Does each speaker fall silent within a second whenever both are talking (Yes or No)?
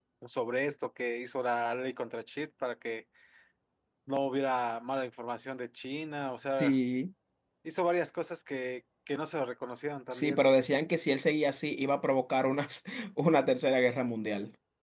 Yes